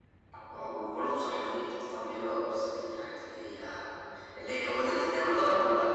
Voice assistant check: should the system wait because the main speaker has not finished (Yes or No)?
Yes